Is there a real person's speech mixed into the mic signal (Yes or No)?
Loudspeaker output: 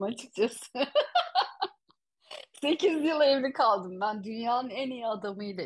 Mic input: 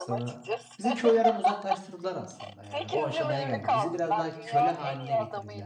Yes